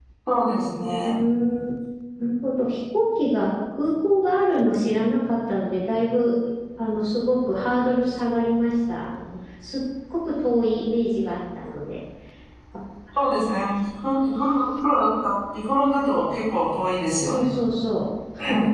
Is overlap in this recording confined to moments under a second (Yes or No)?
Yes